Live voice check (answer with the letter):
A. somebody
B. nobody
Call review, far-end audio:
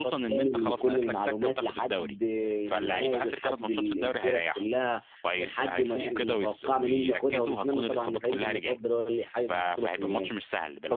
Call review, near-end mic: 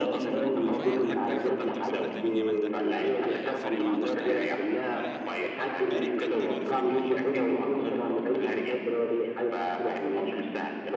A